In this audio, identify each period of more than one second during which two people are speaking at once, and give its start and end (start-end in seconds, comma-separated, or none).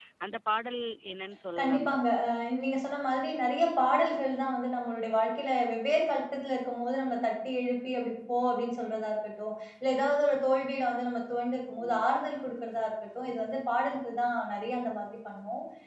none